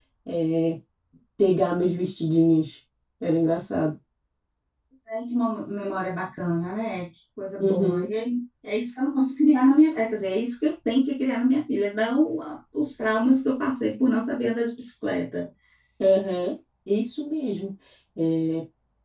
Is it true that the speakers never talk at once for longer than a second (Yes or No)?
Yes